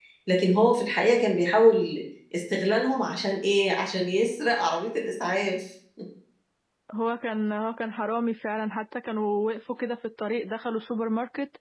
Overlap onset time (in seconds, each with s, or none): none